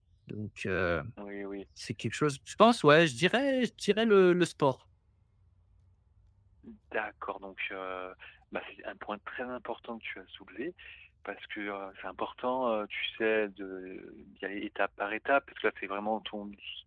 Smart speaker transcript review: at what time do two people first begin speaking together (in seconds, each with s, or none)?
none